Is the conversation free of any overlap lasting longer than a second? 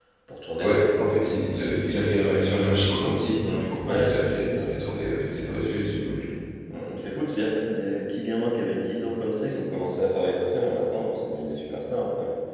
No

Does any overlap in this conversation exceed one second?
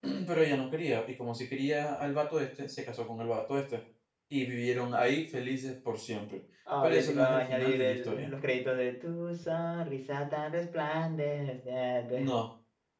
Yes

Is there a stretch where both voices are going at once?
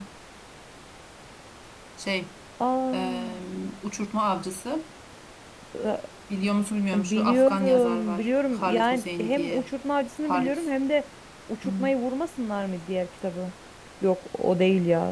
Yes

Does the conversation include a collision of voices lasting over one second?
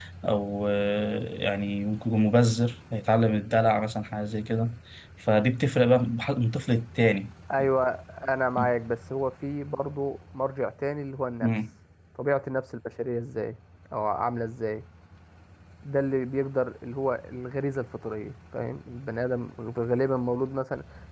No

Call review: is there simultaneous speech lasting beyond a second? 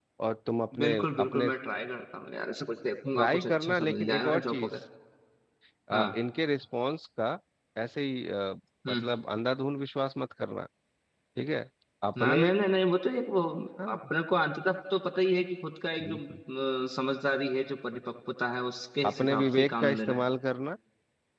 Yes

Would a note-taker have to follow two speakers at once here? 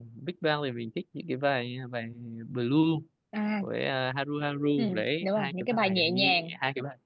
Yes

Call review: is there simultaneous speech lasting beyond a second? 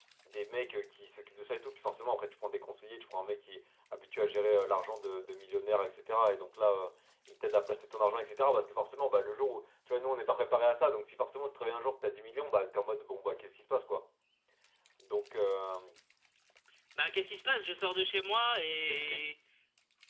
No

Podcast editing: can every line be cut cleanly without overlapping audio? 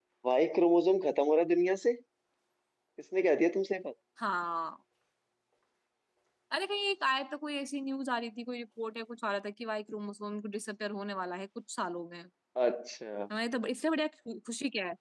Yes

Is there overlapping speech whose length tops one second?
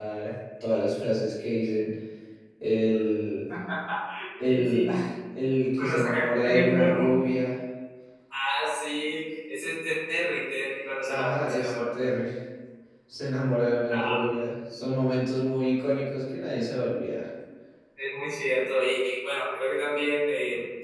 Yes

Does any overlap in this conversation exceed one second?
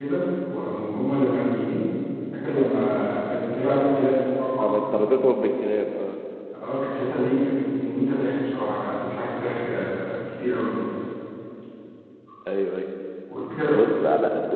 No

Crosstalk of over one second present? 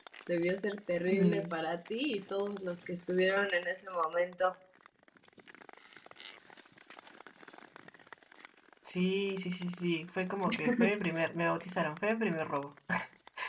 No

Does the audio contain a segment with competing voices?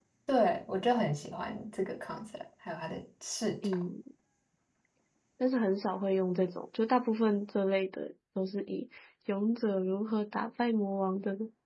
No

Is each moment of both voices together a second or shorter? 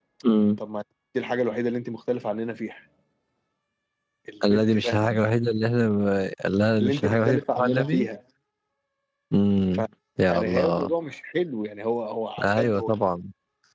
No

